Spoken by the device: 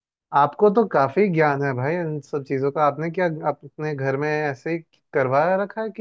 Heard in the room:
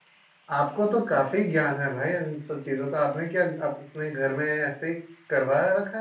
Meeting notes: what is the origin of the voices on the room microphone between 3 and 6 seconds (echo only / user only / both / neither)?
echo only